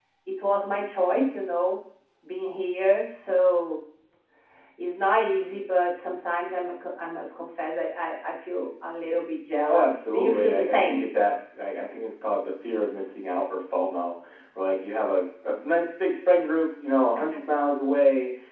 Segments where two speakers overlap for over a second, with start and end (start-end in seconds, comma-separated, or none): 9.7-11.0